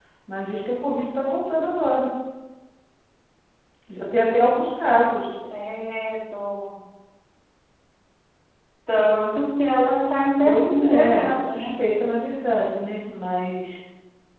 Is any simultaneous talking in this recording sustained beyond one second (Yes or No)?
Yes